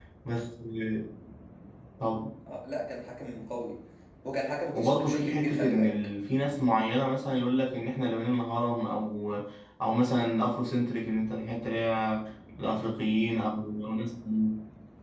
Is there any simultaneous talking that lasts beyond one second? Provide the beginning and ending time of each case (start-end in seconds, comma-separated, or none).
4.7-5.9